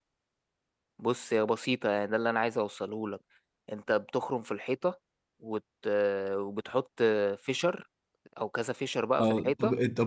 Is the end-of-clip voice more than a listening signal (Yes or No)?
Yes